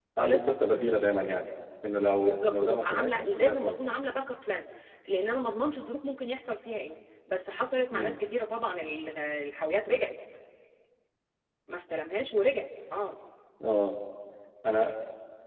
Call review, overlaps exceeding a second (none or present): present